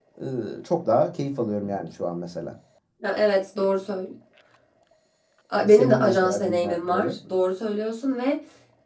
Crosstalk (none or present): present